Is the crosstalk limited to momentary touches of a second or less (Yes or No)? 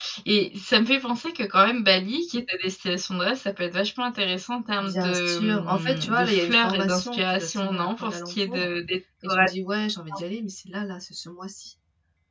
No